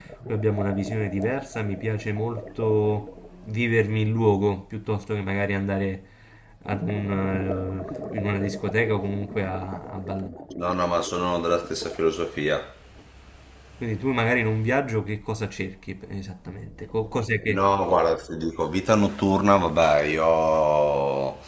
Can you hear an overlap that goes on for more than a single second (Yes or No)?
No